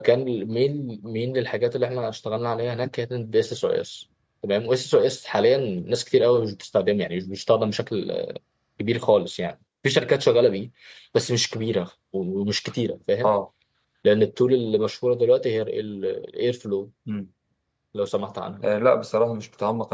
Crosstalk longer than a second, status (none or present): none